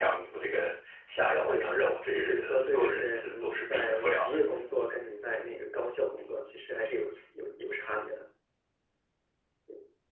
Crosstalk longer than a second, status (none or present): present